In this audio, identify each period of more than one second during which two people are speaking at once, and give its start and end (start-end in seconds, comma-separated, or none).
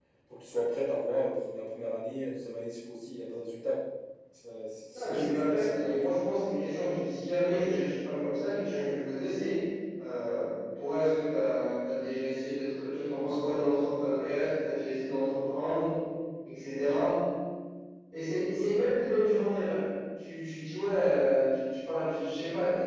4.9-6.1